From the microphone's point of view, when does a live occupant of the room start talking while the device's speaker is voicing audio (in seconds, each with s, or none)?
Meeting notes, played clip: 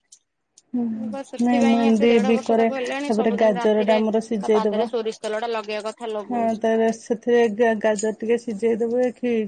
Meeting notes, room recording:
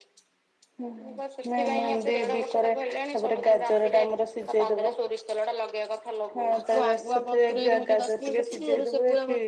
6.5 s